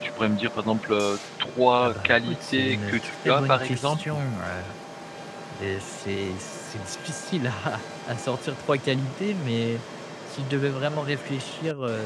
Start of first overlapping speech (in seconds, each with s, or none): 1.8 s